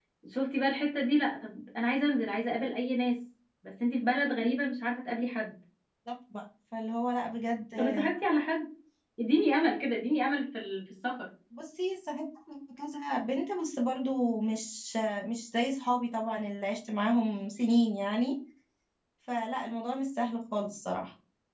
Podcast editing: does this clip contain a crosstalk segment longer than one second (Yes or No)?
No